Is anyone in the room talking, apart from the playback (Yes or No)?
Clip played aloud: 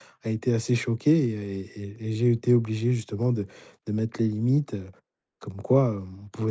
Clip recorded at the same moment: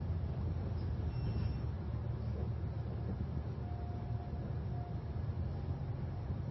No